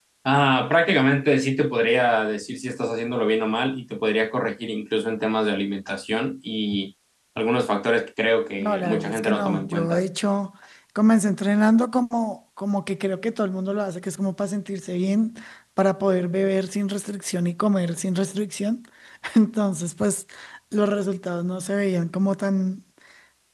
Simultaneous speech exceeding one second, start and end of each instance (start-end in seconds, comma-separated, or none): 8.6-10.0